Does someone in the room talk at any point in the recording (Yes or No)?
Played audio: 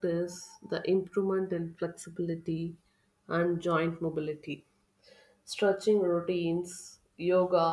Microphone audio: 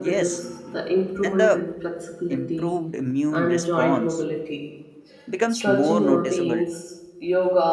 Yes